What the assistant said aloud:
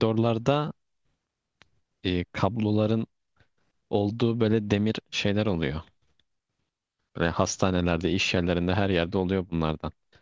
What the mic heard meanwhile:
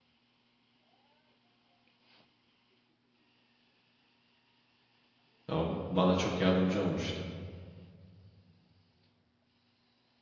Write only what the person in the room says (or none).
Ya O bana çok yardımcı olmuştu.